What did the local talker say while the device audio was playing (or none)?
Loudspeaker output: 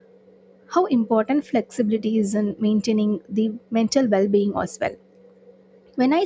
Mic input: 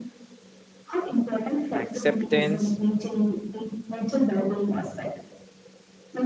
acceptance